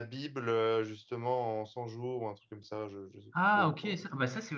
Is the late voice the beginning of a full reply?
Yes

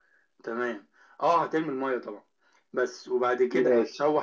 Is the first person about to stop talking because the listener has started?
No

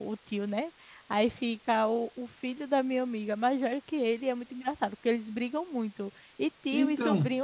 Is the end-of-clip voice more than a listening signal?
No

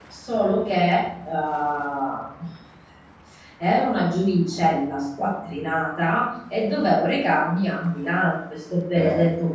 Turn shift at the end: No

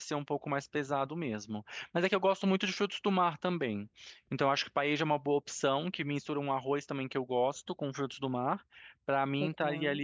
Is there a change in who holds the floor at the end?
No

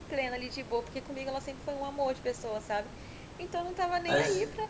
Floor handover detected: No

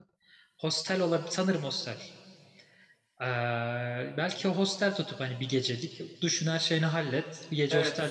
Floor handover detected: Yes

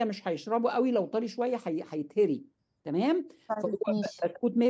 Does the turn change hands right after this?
No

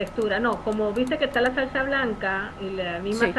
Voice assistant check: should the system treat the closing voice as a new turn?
No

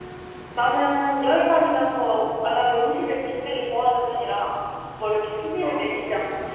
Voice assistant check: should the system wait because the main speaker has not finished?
Yes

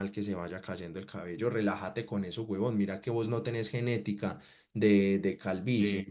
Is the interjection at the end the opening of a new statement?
No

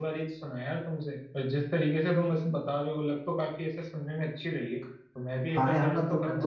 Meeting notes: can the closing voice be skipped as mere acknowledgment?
No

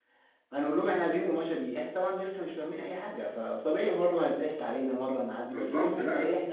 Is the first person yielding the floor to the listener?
No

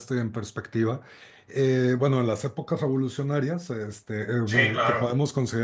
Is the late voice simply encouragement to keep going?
Yes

